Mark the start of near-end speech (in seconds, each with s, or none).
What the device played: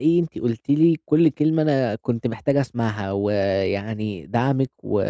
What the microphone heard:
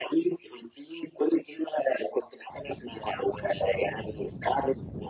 none